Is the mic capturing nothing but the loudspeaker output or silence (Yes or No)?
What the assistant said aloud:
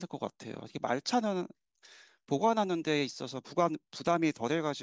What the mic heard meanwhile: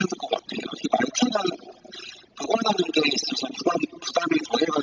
Yes